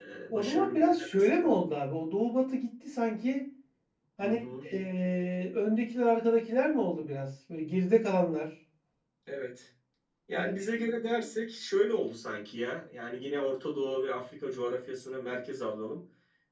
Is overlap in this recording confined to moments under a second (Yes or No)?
No